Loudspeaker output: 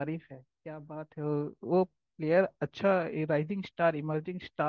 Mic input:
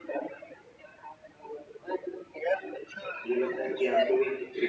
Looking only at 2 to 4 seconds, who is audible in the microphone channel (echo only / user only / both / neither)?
both